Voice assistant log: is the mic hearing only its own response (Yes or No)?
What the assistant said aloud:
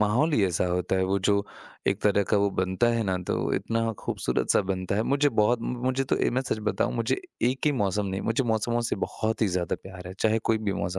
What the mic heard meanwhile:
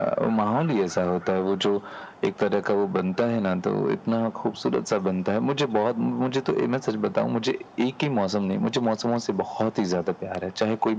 Yes